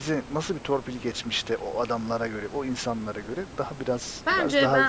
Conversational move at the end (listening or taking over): taking over